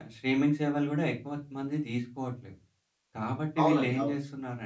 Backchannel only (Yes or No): Yes